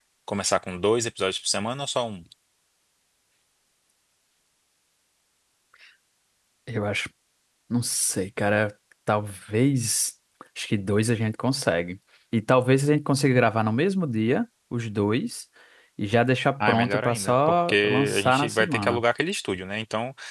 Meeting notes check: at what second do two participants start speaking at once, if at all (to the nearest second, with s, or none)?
17 s